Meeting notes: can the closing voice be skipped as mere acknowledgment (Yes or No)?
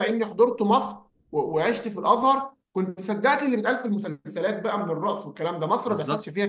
No